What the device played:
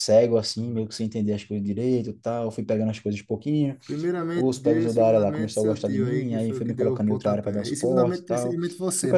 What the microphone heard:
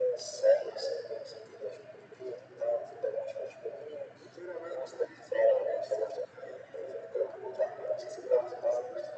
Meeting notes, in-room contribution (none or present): none